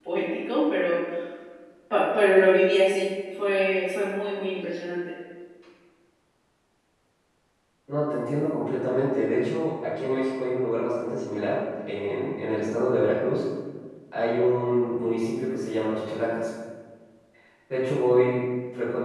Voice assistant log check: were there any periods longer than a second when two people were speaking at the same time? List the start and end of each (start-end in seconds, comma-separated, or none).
none